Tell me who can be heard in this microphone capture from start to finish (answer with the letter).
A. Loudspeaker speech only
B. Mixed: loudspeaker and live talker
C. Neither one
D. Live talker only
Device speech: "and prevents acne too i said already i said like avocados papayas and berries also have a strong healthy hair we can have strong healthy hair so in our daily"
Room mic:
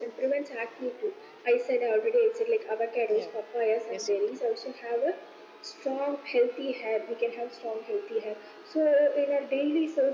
B